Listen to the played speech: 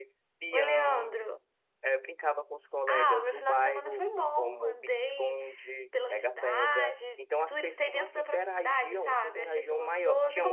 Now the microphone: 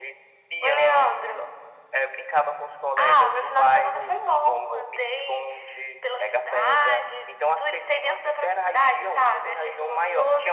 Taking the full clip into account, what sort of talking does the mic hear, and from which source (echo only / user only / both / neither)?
echo only